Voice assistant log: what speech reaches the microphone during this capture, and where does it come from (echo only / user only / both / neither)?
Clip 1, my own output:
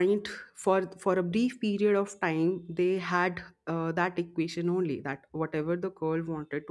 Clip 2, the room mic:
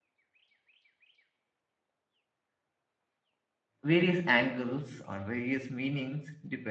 user only